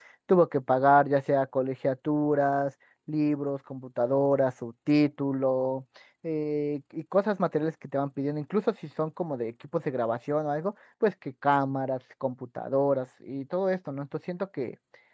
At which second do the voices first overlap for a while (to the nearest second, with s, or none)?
none